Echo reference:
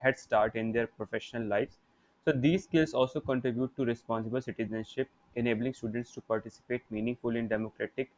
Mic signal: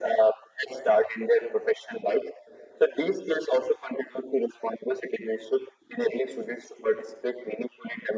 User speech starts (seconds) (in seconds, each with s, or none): none